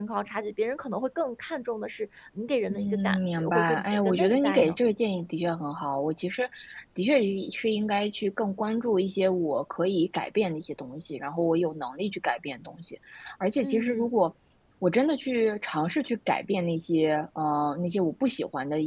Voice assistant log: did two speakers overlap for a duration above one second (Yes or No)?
Yes